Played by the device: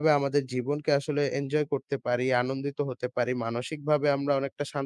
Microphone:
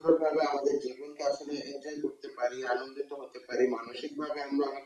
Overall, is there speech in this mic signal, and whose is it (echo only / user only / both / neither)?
echo only